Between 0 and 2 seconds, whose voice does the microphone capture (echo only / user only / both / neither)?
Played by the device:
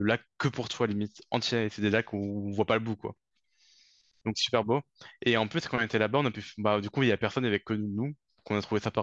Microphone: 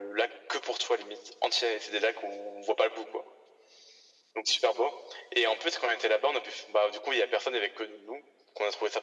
echo only